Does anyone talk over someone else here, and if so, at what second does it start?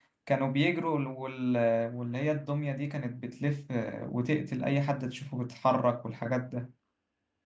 none

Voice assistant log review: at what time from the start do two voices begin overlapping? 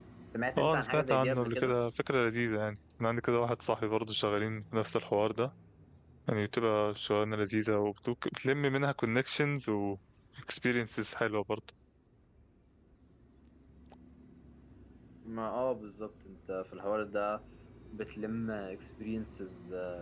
0.6 s

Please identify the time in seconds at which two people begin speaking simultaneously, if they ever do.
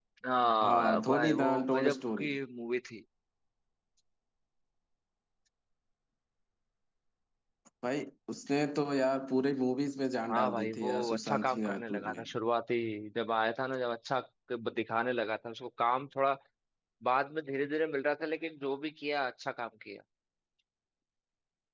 0.6 s

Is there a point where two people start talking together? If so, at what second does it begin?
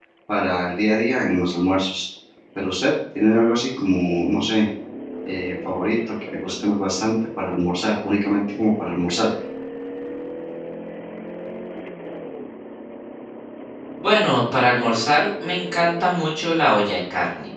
none

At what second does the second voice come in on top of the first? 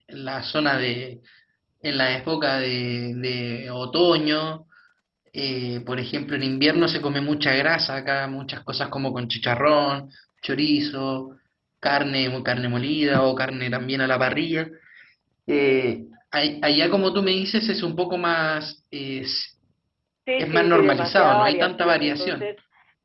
20.4 s

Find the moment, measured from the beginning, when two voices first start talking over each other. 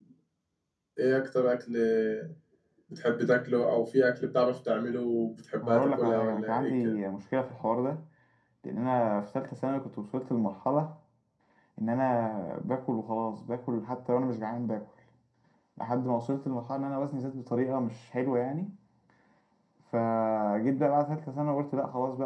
5.6 s

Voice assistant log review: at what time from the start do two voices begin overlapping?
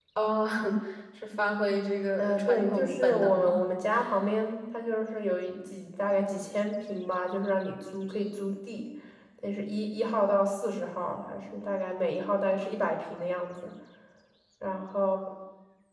2.2 s

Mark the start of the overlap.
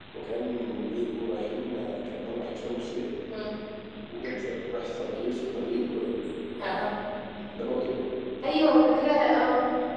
none

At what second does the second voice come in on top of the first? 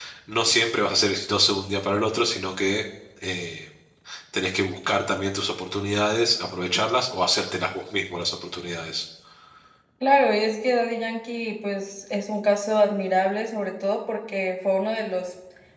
none

